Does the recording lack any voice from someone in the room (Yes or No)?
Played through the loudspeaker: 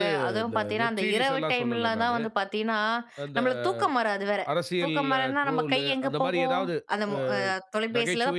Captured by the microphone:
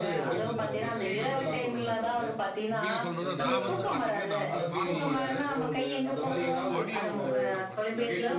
No